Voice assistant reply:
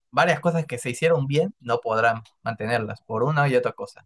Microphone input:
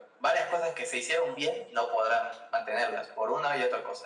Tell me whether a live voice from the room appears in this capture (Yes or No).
No